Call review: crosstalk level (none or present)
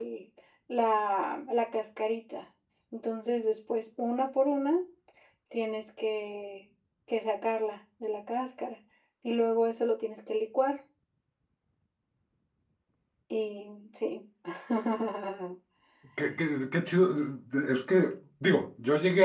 none